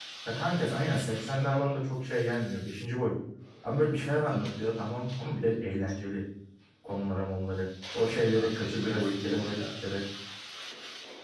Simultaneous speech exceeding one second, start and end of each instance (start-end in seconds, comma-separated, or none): 8.0-9.6